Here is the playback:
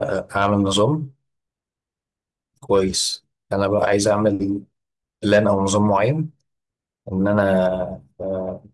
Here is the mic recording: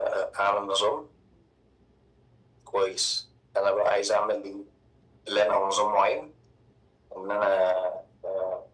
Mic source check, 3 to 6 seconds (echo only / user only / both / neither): echo only